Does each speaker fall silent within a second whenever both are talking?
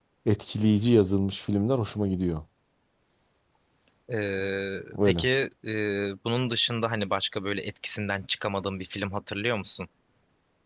Yes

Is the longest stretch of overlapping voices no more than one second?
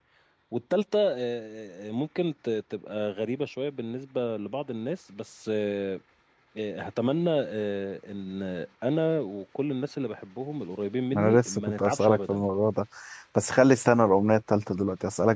No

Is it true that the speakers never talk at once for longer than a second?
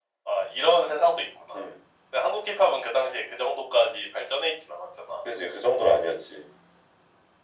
Yes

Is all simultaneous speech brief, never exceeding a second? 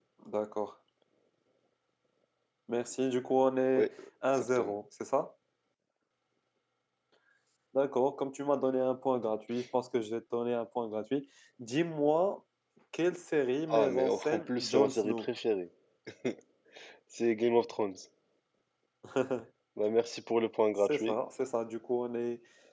No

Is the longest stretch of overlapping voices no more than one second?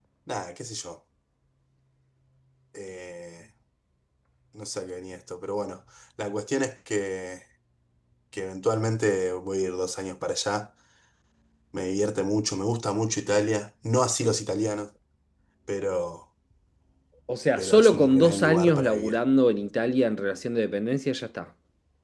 No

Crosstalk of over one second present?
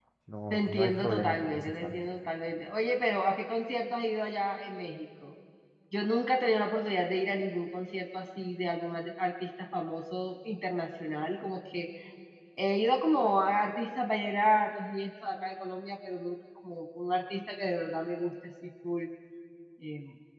Yes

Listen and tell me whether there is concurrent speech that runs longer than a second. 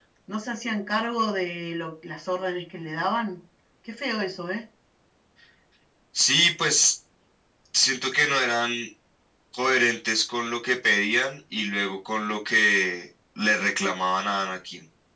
No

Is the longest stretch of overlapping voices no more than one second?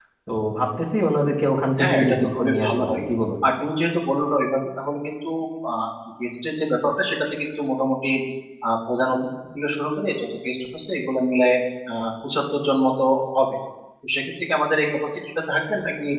No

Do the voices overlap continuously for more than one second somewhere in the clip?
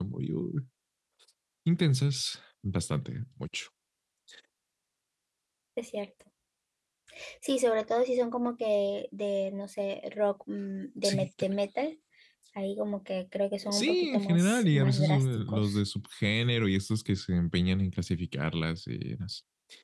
Yes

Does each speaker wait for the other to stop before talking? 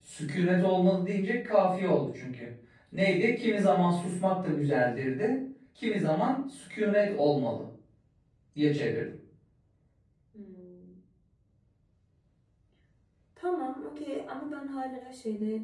Yes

